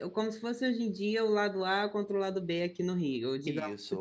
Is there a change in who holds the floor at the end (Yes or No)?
Yes